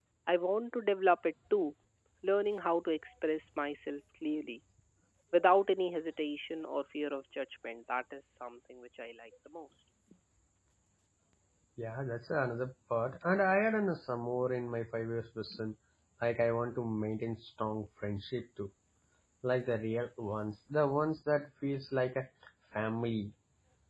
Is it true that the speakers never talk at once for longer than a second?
Yes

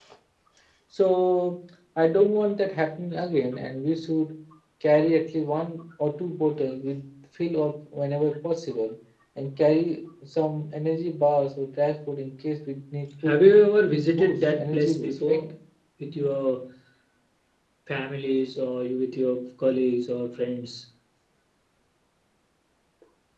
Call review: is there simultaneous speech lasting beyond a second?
Yes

